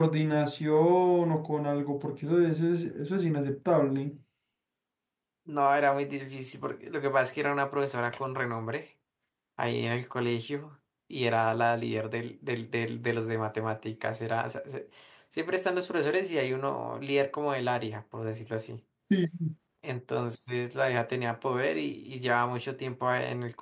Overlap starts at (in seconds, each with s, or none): none